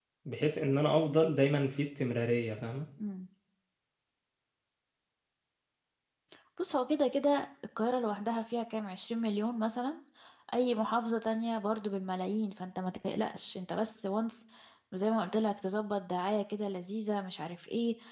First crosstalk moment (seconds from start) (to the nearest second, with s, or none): none